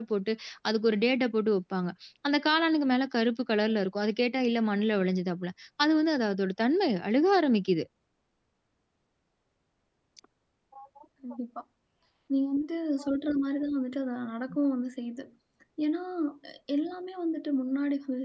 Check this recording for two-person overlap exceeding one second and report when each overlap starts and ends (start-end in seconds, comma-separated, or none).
none